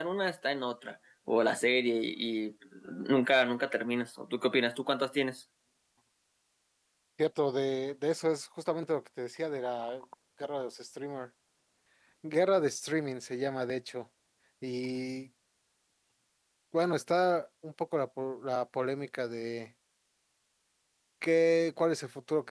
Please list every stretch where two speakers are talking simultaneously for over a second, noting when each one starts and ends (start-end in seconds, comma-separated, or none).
none